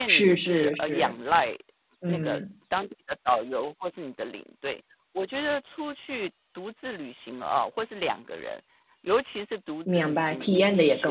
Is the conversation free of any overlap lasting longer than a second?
No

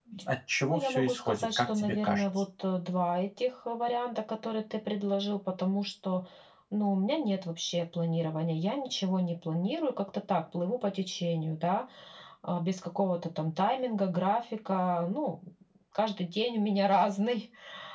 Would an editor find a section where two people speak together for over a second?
Yes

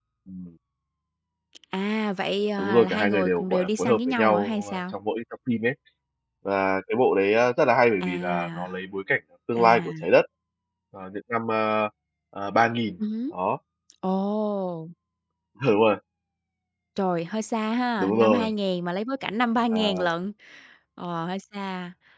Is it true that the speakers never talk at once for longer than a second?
No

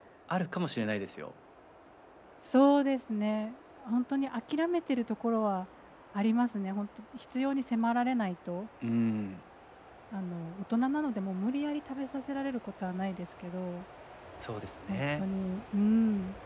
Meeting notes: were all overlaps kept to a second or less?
Yes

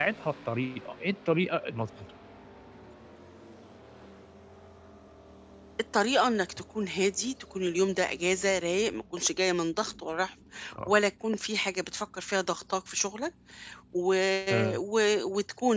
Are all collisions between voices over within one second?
Yes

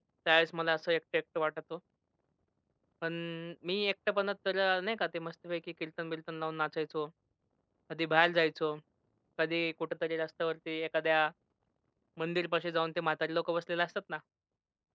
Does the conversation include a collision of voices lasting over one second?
No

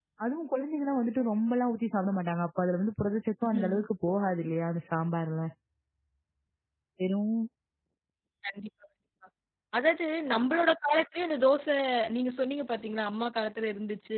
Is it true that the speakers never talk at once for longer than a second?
Yes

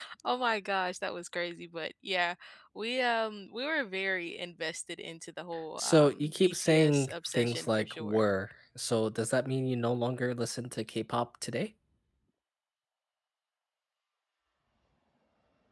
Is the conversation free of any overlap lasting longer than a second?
No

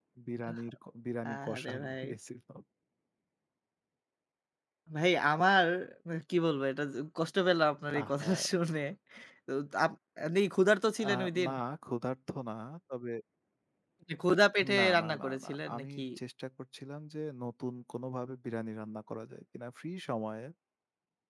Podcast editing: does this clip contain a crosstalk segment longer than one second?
Yes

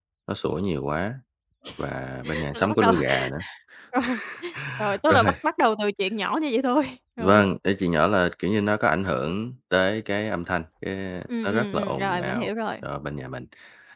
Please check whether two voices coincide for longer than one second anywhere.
Yes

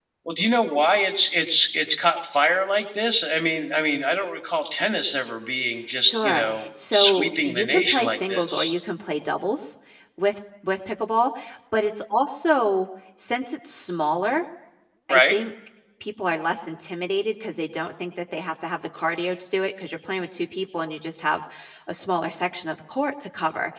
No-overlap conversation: No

